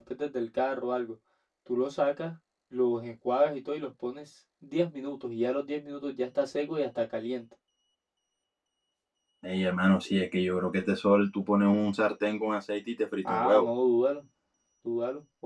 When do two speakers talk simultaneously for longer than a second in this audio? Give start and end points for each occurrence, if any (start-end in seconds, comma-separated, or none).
none